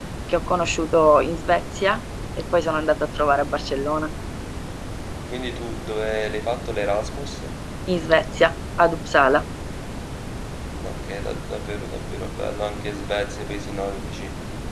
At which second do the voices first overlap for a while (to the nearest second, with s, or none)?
none